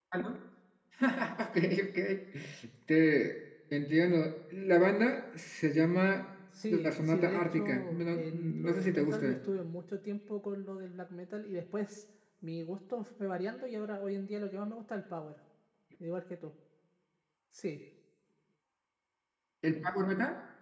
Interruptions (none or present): present